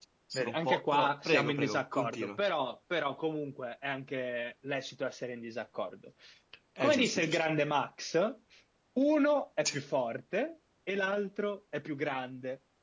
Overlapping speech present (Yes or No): Yes